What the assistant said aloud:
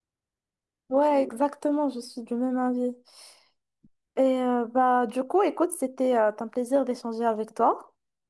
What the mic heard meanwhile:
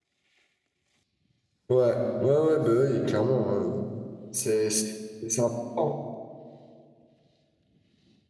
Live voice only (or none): Ouais, ouais, ouais, bah oui, clairement. euh, c'est c'est- c'est important.